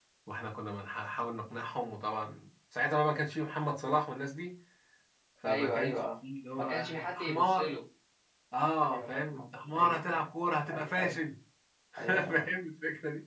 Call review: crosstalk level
present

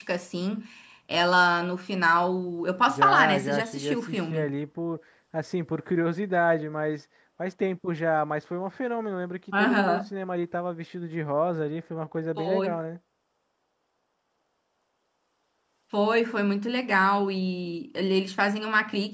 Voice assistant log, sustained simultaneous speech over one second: present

